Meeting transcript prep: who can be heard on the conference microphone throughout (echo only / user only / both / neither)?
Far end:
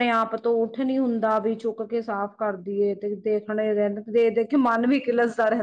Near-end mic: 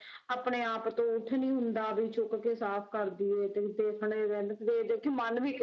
echo only